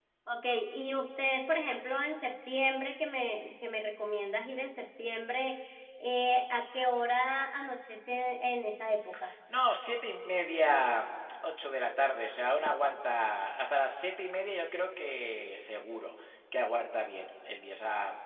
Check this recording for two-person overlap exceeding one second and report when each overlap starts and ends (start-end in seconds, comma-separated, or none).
none